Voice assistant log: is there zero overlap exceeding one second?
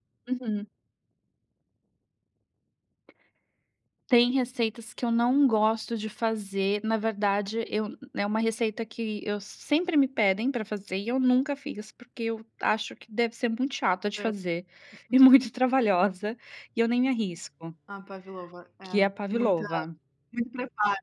Yes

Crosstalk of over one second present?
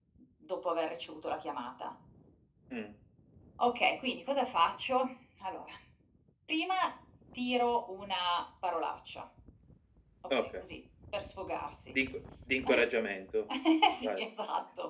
No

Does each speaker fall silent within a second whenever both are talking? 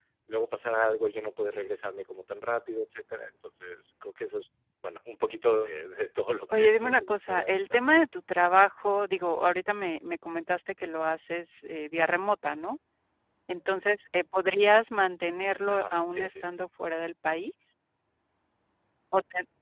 No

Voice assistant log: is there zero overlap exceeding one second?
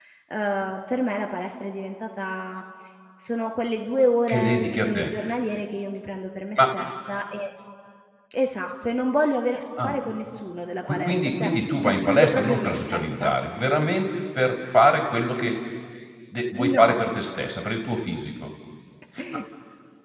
No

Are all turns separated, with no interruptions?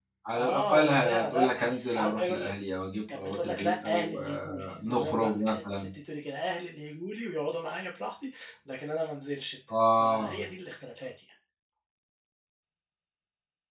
No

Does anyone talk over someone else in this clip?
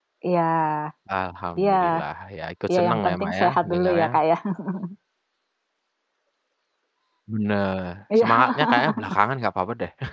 Yes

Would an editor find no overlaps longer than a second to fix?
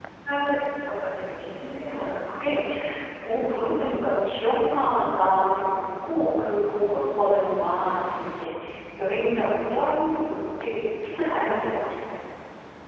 Yes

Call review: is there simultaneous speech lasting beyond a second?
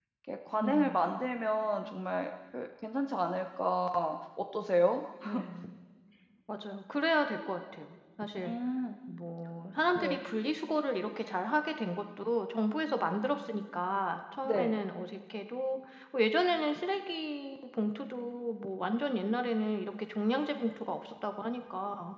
No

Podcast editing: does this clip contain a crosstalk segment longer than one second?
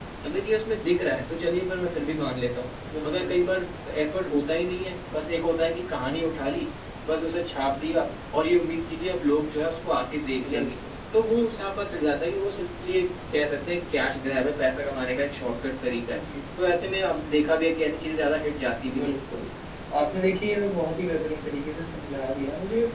No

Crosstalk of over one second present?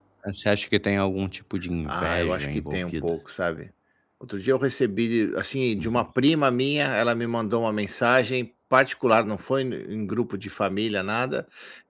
Yes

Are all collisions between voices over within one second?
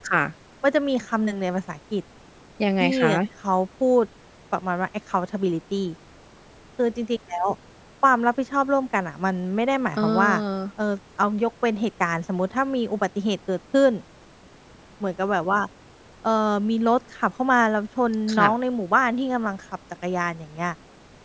Yes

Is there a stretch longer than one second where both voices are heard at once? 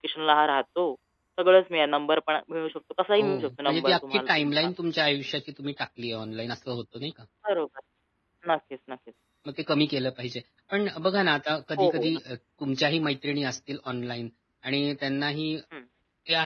Yes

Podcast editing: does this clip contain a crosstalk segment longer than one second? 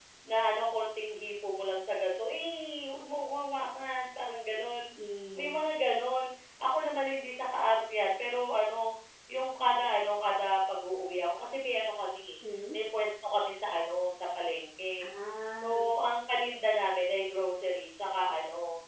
No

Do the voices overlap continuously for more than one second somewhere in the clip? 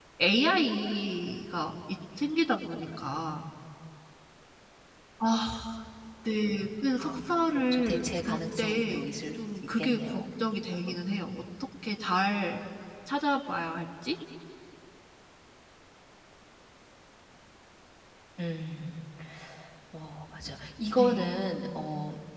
Yes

